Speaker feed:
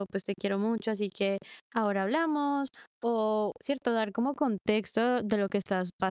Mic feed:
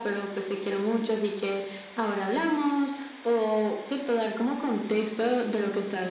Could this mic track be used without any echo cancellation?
No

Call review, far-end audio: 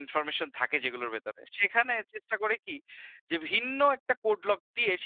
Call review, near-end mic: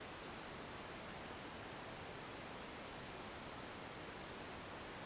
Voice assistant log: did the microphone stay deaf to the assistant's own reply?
Yes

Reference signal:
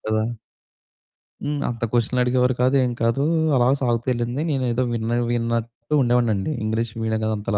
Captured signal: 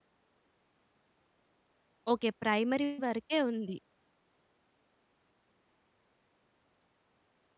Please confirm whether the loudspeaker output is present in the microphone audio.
No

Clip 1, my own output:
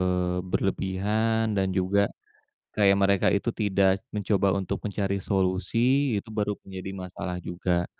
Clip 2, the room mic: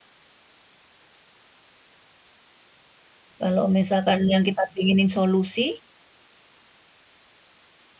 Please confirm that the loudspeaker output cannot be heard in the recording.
Yes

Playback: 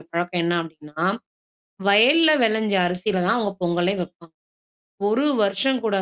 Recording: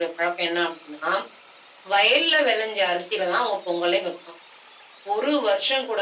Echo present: Yes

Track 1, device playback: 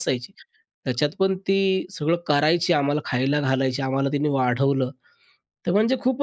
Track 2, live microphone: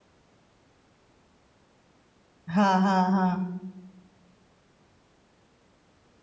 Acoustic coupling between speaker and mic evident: No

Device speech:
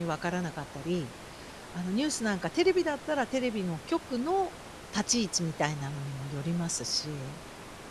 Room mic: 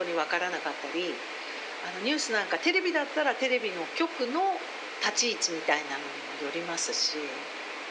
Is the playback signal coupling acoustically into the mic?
Yes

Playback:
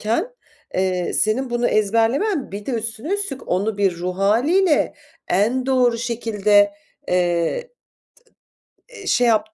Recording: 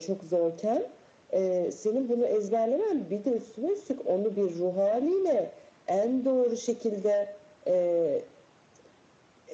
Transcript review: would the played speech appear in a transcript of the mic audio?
Yes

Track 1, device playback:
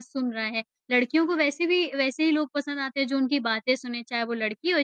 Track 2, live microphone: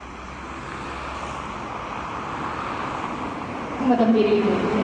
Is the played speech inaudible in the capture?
Yes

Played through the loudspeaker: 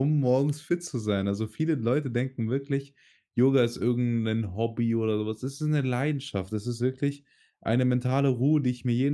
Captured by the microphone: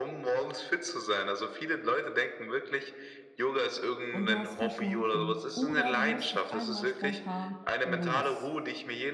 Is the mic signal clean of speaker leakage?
No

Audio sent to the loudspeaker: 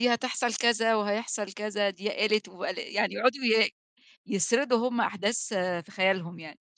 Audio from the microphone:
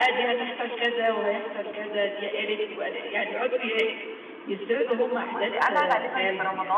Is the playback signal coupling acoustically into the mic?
Yes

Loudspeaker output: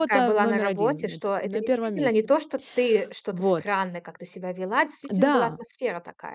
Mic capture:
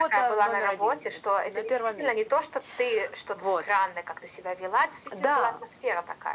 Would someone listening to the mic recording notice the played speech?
Yes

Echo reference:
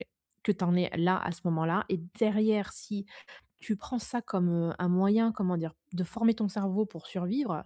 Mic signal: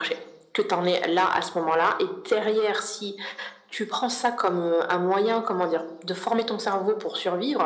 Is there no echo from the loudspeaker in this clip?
No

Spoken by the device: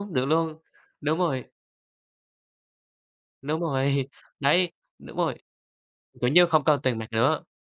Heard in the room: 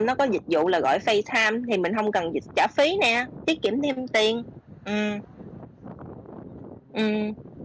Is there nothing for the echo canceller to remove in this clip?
Yes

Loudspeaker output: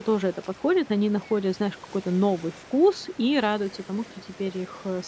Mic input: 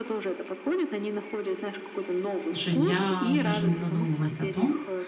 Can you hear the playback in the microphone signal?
Yes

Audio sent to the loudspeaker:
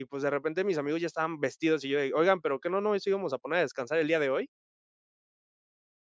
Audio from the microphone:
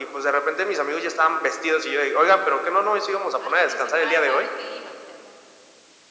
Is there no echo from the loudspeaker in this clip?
No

